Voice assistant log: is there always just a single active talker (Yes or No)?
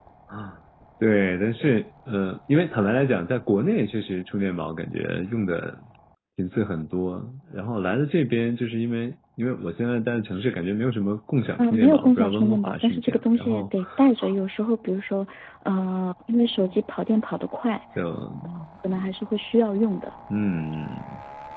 No